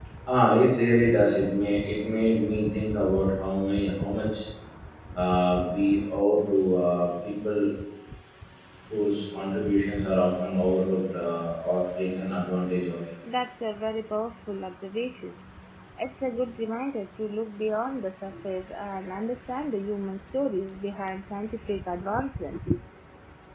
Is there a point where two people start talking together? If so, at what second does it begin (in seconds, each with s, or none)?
none